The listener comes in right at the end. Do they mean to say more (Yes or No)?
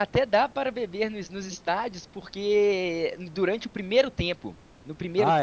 No